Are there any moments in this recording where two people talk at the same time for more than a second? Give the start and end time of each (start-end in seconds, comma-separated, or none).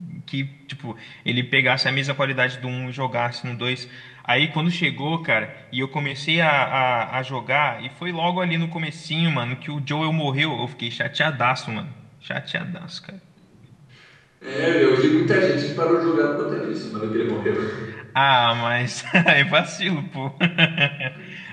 none